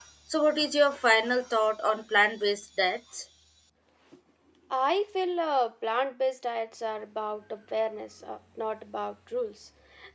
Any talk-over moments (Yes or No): No